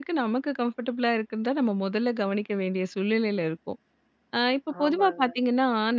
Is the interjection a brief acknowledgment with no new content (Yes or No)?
Yes